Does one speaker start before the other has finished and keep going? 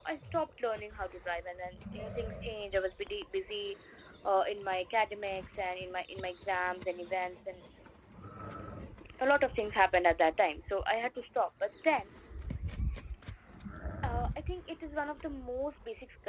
No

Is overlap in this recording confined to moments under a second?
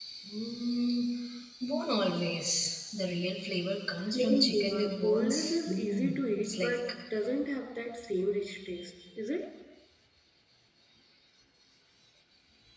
No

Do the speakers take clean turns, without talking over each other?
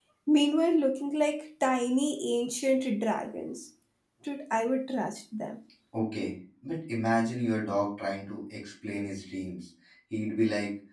Yes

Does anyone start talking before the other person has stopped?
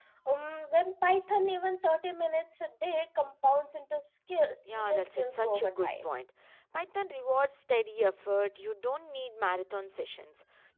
Yes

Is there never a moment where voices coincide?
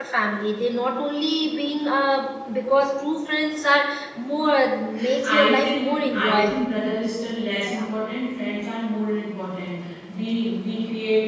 No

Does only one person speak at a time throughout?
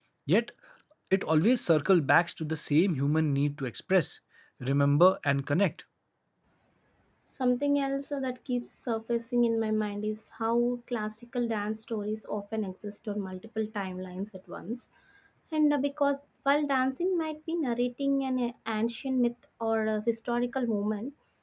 Yes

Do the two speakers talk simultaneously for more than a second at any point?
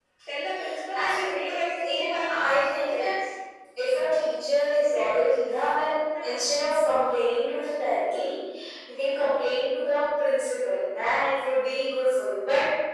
Yes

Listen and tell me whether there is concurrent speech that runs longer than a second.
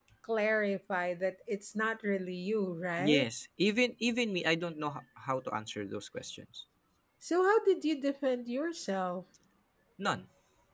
No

